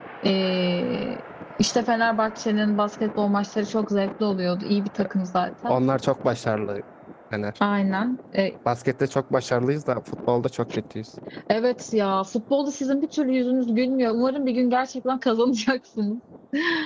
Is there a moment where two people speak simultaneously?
No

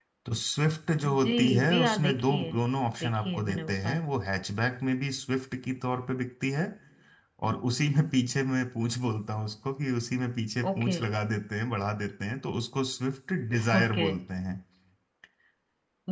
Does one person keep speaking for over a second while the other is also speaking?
Yes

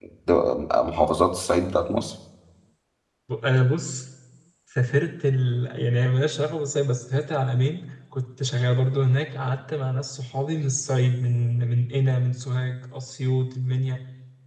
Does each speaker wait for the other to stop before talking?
Yes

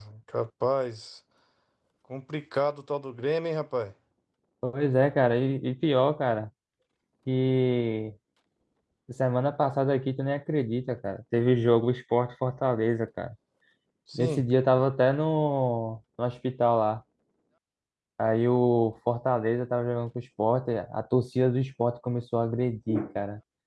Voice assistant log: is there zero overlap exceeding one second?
Yes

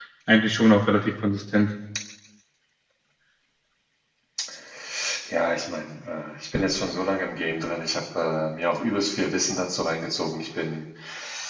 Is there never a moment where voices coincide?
Yes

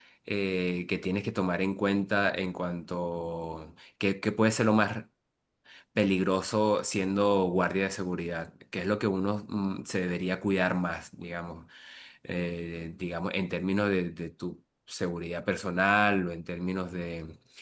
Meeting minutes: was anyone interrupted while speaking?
No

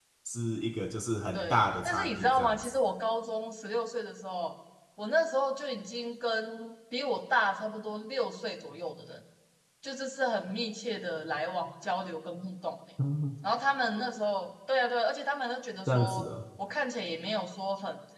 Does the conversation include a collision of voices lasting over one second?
Yes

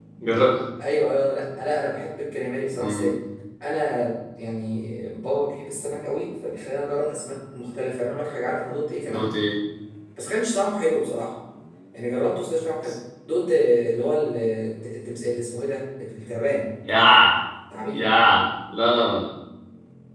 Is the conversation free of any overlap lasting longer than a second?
Yes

